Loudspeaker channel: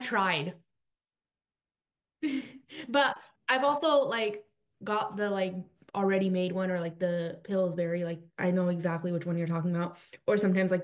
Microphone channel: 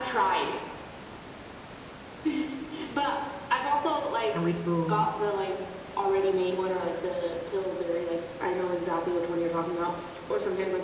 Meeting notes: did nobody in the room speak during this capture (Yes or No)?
No